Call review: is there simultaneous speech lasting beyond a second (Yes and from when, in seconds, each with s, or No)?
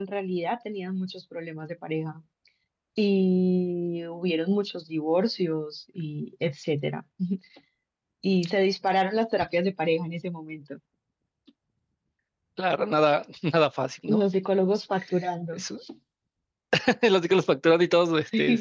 No